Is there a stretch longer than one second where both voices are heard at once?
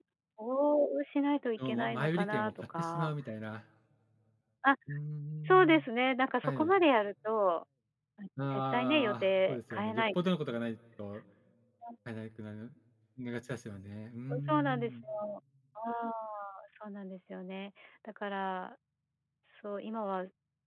Yes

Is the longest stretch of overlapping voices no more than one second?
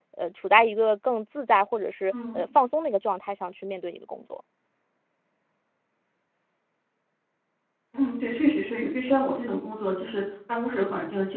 Yes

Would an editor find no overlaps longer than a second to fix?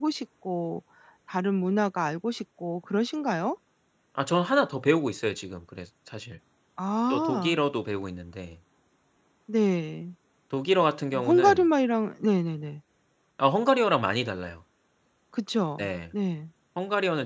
Yes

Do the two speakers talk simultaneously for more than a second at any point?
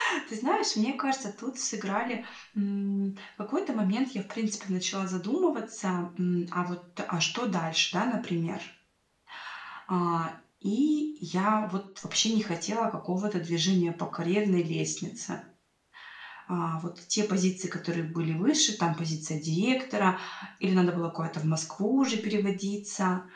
No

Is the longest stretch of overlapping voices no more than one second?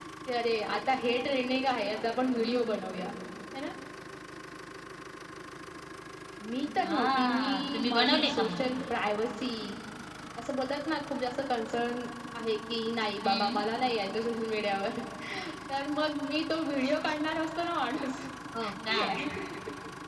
No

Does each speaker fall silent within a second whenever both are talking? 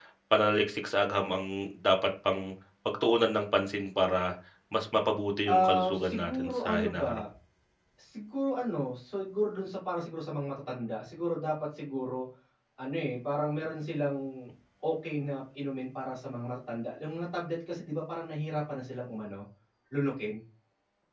No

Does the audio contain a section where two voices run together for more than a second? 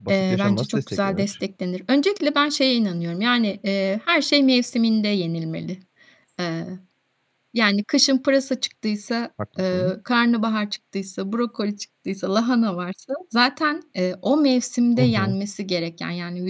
Yes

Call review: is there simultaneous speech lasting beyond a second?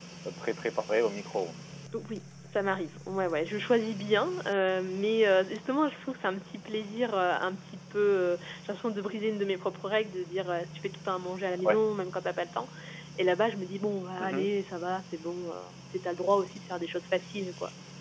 No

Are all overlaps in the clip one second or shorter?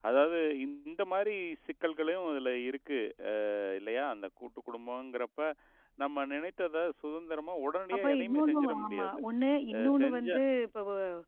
No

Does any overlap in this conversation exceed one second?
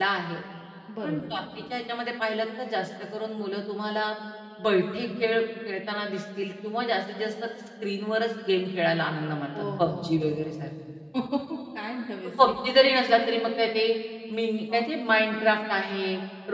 No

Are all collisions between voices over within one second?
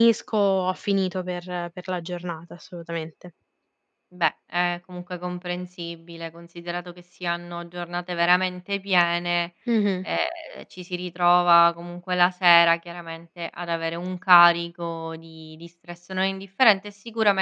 Yes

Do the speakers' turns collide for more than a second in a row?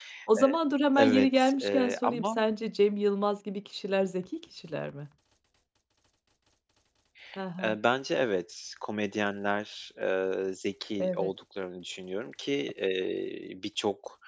Yes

